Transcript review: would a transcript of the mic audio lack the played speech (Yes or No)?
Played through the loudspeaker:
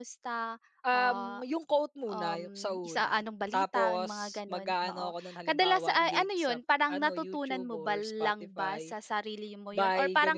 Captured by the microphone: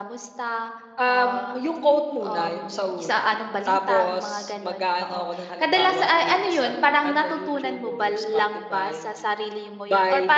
No